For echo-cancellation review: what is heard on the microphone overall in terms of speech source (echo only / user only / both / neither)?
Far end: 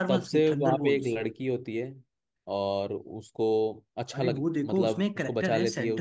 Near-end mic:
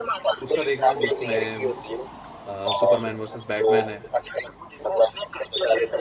both